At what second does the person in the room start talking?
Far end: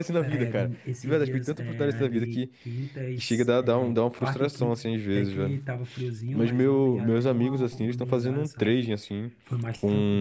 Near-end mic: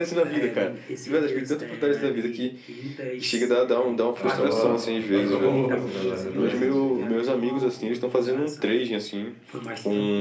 4.2 s

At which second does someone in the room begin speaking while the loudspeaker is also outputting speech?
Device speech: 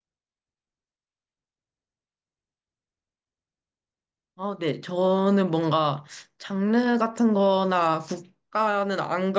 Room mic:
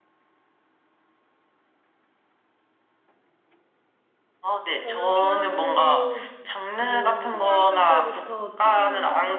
4.7 s

